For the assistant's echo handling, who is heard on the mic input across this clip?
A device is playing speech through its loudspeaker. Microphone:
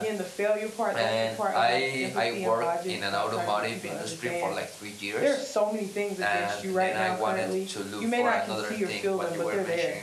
echo only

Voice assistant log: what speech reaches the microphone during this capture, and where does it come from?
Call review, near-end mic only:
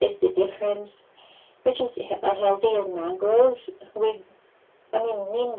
echo only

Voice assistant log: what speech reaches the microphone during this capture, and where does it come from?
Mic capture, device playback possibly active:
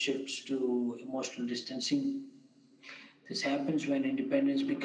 echo only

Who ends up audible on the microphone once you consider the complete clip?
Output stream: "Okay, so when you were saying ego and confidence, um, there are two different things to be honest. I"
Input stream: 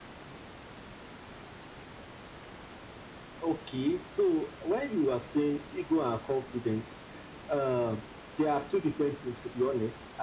echo only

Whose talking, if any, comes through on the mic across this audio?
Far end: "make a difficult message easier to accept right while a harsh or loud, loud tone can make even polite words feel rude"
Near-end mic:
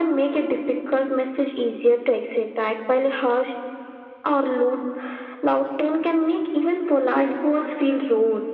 echo only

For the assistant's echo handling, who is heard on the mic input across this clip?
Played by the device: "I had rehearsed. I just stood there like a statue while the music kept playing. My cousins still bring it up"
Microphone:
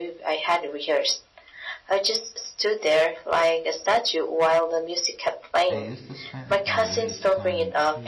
both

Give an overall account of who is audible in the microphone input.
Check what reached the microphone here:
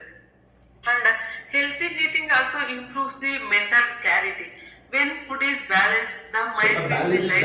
both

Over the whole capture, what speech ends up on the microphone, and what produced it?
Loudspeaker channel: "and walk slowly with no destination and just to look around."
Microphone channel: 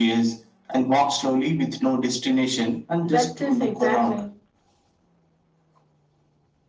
both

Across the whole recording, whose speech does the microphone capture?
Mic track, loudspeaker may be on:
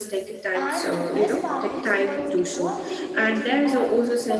both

